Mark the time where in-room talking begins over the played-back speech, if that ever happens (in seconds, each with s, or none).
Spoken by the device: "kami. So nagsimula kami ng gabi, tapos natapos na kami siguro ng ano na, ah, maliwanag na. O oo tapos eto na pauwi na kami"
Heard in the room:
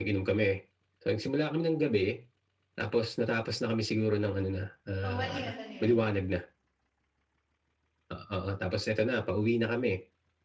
5.0 s